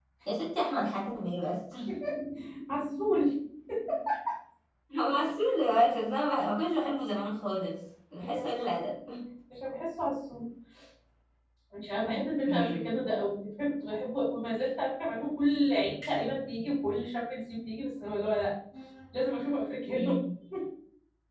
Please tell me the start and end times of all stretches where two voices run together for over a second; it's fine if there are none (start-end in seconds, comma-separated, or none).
none